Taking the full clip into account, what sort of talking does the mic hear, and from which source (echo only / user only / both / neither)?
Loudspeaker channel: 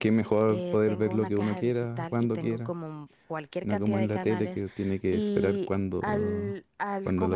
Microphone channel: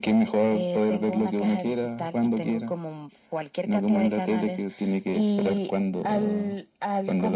echo only